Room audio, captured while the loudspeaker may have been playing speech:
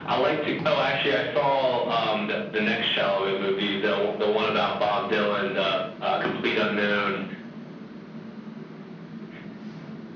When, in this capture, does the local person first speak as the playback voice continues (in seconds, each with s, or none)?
none